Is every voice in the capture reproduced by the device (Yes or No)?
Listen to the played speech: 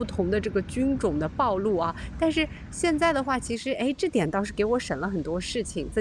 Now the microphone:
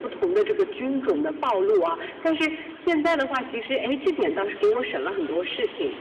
Yes